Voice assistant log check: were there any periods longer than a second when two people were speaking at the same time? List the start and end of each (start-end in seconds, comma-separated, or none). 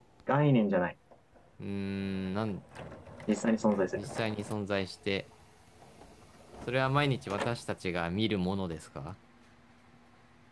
none